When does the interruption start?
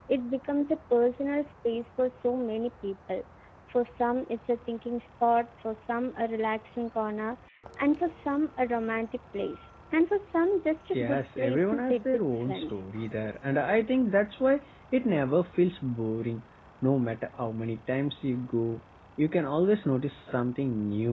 10.9 s

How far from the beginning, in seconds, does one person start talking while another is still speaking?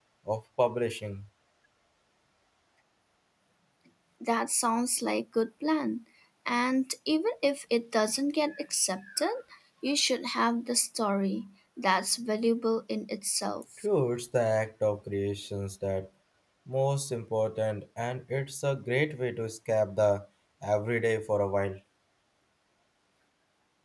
none

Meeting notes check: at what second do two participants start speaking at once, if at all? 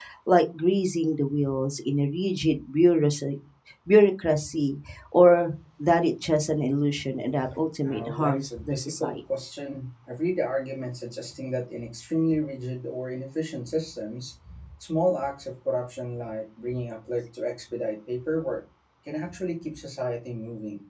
7.8 s

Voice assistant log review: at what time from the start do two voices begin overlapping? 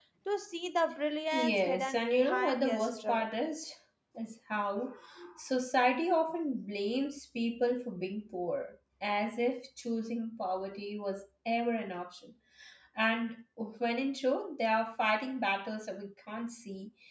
1.3 s

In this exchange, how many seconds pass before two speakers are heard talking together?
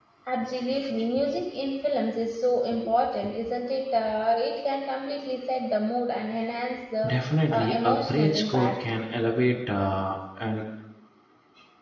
7.5 s

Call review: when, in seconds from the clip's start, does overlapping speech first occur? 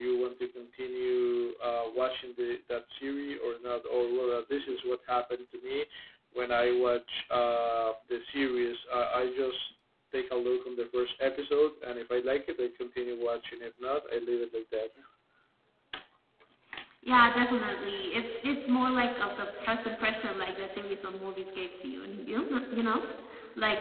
none

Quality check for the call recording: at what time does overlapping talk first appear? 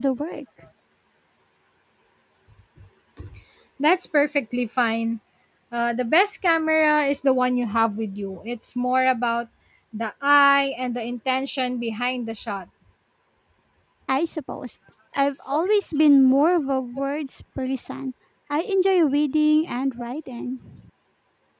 none

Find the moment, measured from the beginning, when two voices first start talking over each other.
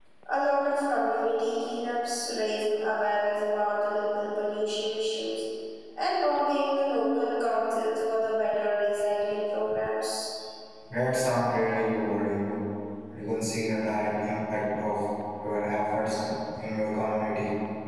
none

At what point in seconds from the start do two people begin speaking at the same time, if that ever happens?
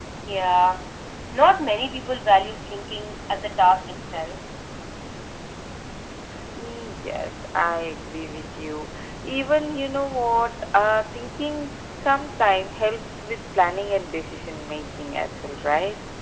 none

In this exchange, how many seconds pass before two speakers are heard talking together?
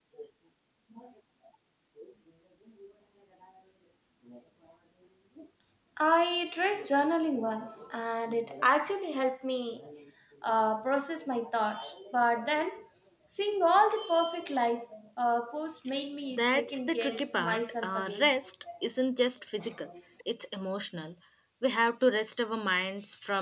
16.3 s

